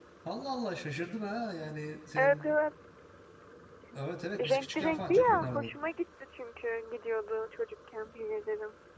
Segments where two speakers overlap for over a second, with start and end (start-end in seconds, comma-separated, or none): 4.4-5.7